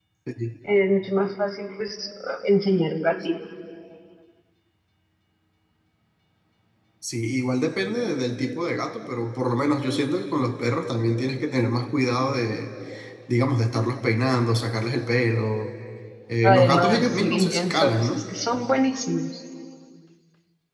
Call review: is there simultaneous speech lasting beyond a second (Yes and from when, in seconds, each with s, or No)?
Yes, from 16.4 s